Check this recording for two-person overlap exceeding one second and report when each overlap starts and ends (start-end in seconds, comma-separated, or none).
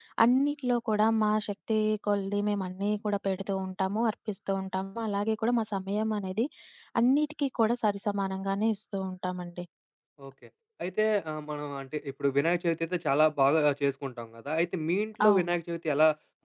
none